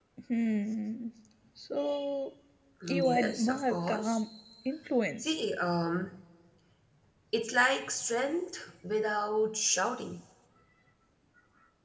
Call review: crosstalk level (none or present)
present